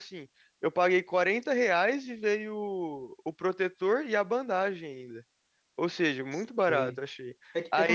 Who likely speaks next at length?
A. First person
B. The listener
B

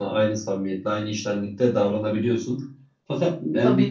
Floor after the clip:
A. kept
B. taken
A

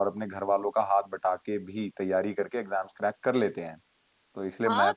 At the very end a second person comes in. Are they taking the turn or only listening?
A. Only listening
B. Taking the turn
B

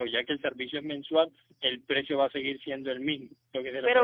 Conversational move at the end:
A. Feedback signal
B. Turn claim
B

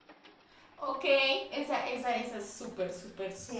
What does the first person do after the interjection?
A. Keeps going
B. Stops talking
B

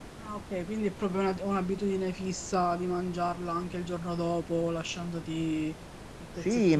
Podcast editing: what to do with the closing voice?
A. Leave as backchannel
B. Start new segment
B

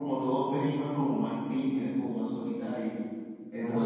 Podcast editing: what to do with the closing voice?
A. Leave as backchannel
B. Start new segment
A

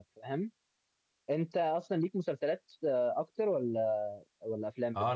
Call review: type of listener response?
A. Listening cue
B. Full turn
B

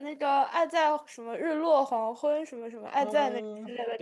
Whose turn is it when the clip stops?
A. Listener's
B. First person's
A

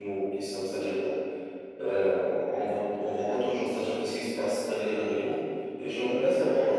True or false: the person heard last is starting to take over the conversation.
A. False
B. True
A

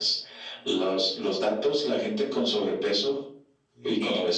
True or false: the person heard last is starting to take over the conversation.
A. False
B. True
A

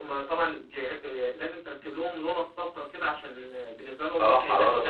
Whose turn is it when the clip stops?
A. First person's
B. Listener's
B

